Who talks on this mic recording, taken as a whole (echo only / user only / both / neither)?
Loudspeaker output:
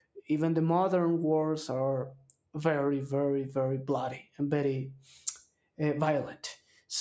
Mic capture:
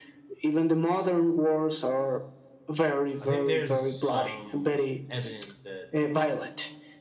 both